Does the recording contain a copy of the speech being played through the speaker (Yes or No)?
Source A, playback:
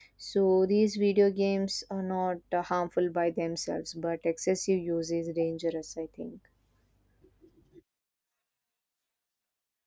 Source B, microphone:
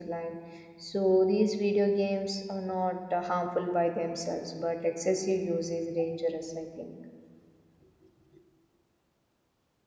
Yes